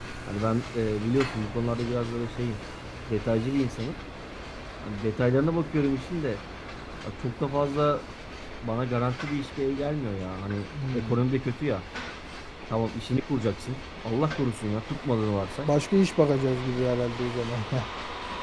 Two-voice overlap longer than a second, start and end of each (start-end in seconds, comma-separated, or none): none